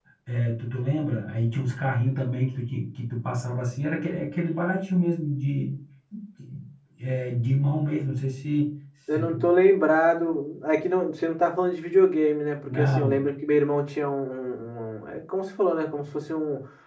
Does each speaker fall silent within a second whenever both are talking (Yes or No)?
Yes